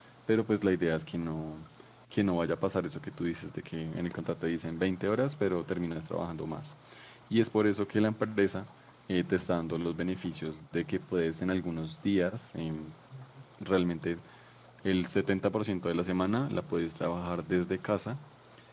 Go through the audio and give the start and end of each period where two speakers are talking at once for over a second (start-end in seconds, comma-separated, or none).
none